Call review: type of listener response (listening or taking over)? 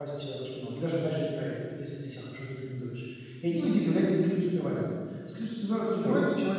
listening